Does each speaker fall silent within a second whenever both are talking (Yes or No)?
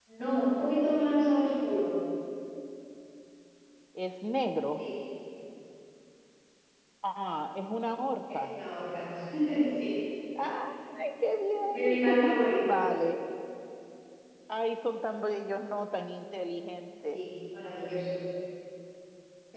No